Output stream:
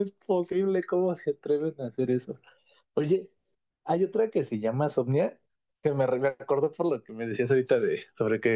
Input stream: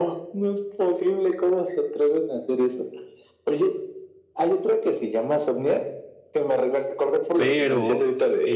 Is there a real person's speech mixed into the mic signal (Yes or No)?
Yes